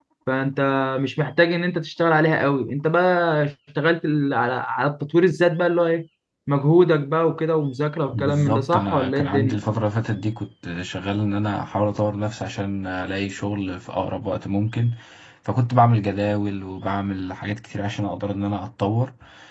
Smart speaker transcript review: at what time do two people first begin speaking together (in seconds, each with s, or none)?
8.1 s